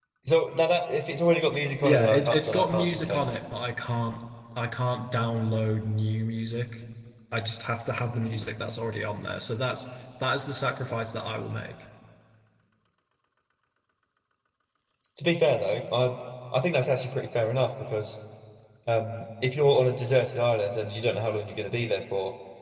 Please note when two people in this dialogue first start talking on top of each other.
1.8 s

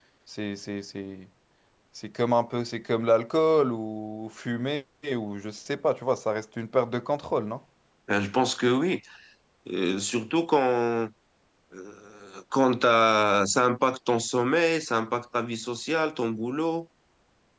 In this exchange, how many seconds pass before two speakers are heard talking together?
none

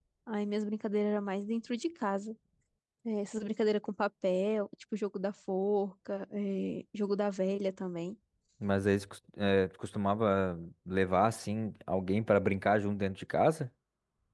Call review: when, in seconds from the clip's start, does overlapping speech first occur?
none

